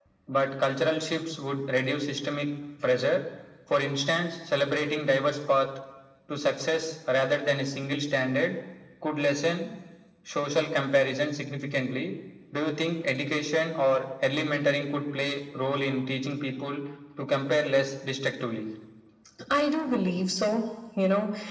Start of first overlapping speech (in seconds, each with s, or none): none